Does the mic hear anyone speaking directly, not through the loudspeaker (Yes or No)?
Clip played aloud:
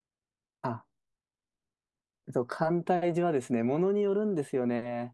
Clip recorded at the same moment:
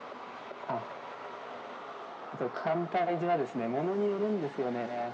No